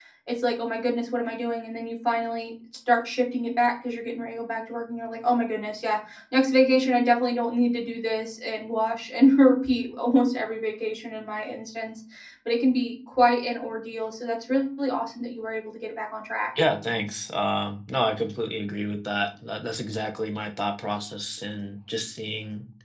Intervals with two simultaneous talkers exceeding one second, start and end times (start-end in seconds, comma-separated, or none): none